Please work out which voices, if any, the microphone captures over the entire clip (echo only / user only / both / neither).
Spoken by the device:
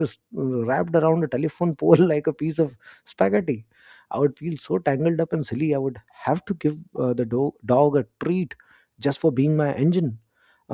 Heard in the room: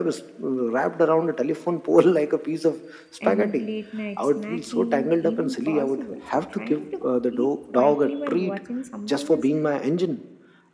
both